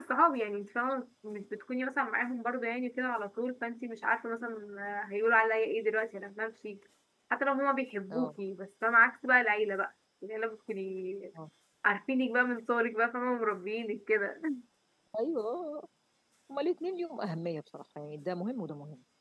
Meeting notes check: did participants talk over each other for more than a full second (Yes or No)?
No